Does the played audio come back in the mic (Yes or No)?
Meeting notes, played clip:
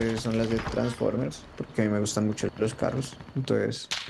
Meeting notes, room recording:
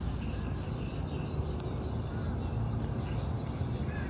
No